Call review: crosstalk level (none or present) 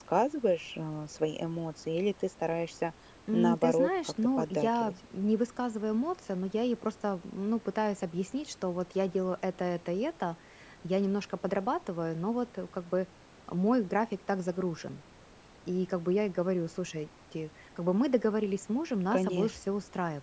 present